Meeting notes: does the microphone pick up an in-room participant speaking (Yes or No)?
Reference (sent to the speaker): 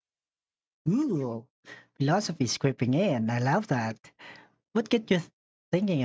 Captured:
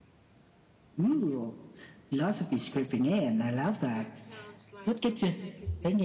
Yes